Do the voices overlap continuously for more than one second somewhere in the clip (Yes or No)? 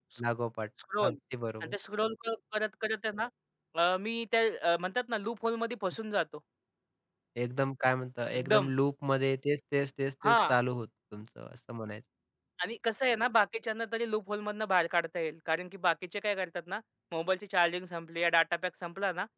No